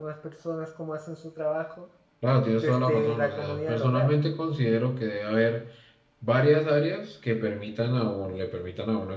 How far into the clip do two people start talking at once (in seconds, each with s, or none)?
2.6 s